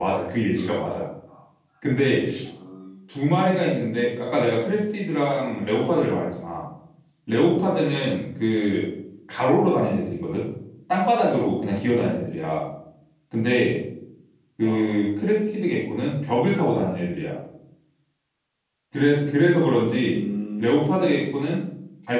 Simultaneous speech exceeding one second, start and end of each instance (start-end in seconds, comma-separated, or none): none